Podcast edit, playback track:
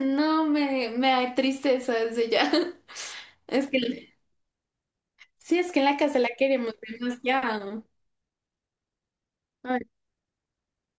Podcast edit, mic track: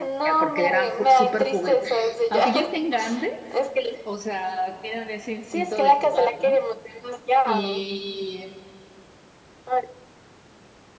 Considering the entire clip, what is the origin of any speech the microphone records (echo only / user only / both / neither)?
both